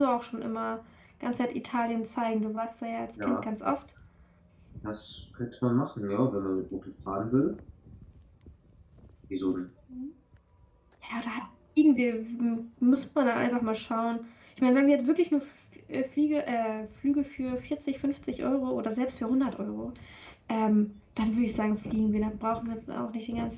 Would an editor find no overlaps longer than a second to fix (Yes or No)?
Yes